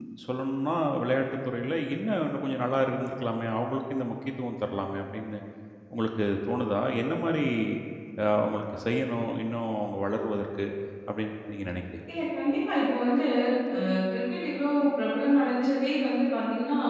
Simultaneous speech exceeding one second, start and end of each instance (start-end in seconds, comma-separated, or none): none